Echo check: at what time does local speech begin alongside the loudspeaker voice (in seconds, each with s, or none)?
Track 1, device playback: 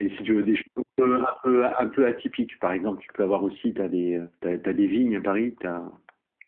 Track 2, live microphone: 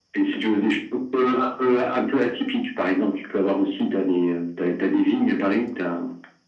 none